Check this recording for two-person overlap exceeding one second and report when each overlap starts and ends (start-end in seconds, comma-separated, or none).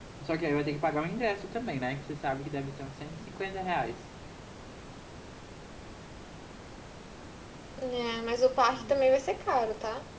none